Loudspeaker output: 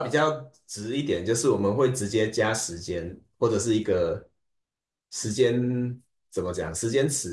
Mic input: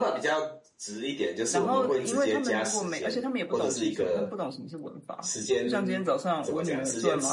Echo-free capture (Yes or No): No